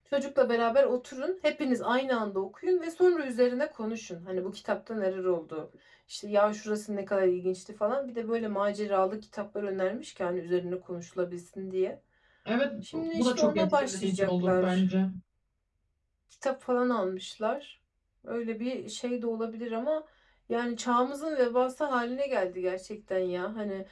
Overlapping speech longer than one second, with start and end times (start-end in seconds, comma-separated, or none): 12.9-14.8